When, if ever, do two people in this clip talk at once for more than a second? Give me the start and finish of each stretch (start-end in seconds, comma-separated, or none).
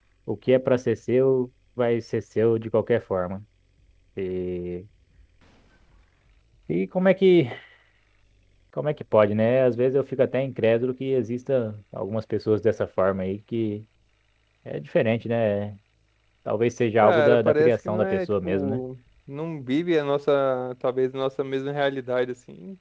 17.0-18.8